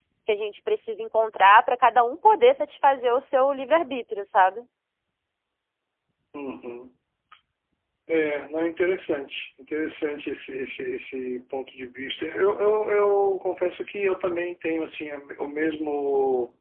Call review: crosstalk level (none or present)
none